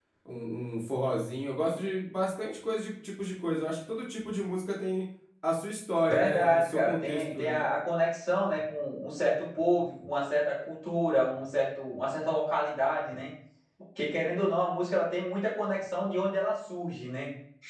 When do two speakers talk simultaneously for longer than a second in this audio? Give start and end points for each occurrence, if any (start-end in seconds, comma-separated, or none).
6.1-7.7